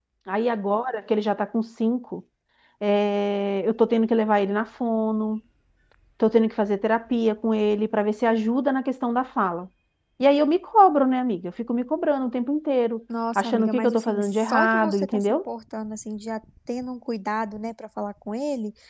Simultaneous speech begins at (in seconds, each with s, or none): 13.3 s